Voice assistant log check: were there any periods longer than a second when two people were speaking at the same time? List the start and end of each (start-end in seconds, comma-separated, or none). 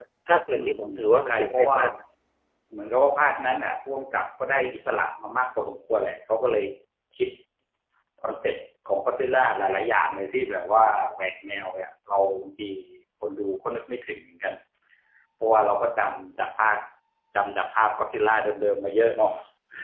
0.6-1.8